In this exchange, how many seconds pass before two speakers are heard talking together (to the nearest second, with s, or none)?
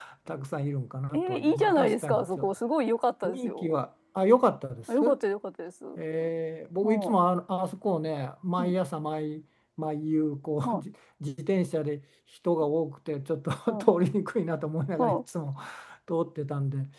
1 s